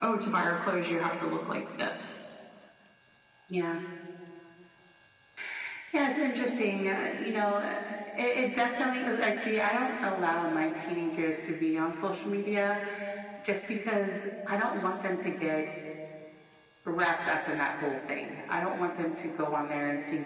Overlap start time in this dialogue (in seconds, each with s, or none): none